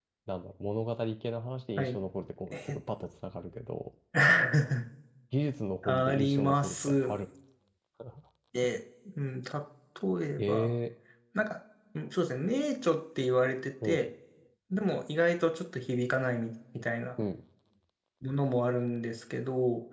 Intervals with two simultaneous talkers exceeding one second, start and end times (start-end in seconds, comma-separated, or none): 5.8-7.1